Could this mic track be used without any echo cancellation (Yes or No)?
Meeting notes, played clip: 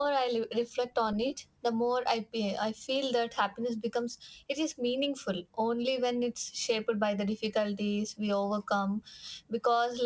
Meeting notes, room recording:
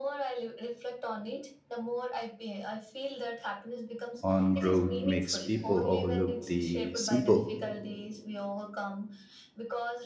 No